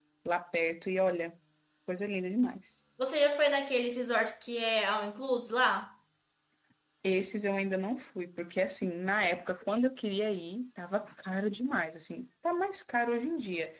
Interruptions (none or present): none